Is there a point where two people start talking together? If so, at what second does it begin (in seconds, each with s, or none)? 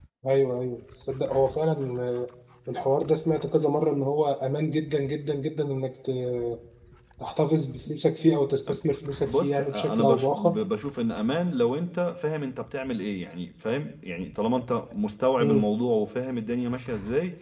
9.2 s